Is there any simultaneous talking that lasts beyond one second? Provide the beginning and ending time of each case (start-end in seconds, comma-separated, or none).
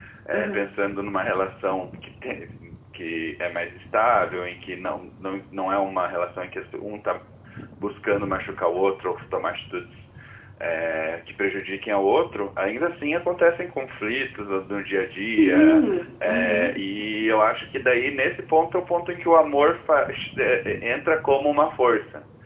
15.4-16.8